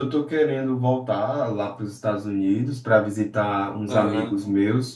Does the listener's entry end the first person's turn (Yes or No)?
No